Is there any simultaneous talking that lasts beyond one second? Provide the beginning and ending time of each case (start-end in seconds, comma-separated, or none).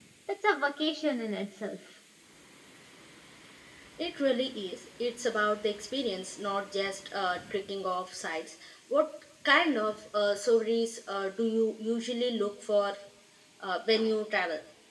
none